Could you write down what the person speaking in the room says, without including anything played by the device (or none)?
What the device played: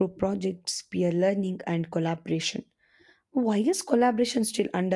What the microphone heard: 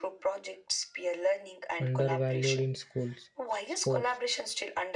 undervalued in schools. Sports,